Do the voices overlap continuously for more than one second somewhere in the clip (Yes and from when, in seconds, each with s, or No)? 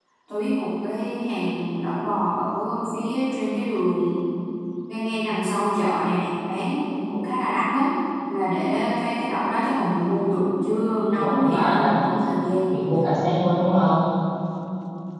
Yes, from 11.2 s